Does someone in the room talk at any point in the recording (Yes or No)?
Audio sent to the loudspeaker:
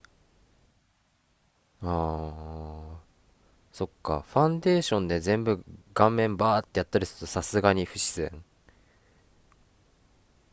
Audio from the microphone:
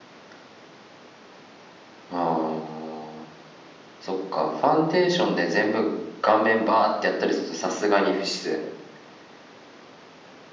No